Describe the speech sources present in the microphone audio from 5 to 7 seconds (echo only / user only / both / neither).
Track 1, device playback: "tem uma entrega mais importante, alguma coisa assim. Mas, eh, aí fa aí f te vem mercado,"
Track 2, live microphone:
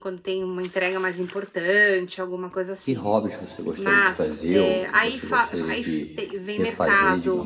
both